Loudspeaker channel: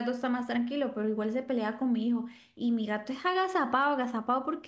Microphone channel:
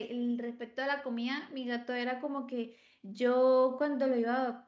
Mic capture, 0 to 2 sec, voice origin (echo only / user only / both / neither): user only